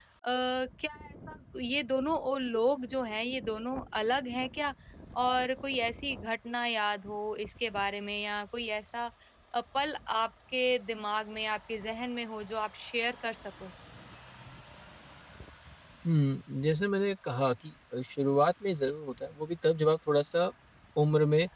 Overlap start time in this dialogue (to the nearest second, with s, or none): none